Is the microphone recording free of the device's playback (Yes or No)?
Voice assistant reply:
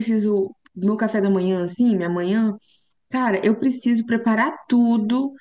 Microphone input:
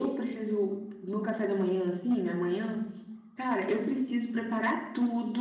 No